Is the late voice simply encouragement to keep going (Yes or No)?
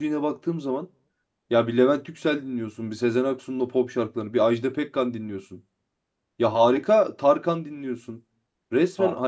Yes